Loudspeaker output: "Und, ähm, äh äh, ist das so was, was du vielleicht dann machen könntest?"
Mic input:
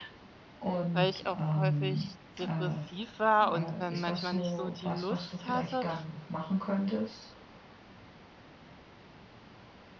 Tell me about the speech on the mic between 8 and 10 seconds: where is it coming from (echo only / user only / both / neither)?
neither